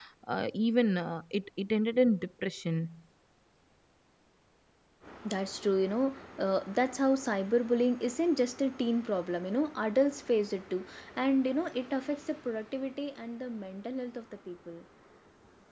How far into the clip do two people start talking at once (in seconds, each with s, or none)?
none